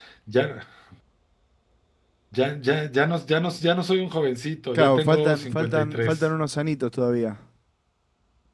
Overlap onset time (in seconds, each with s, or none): 4.8 s